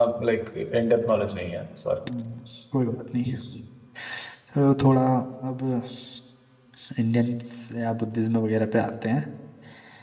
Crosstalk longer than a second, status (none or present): none